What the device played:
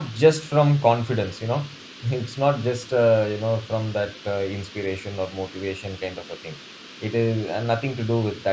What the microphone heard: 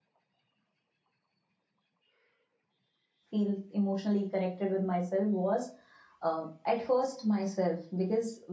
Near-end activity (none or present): present